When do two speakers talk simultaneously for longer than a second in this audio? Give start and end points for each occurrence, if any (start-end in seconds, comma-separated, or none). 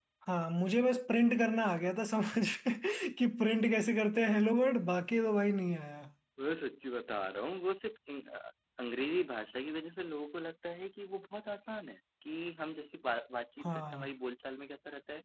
none